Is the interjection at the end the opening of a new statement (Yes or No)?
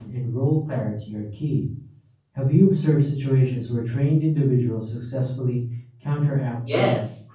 Yes